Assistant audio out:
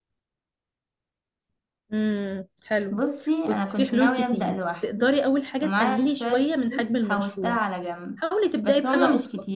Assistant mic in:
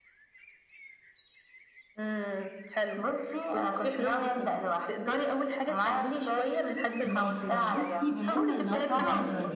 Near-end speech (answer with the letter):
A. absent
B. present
B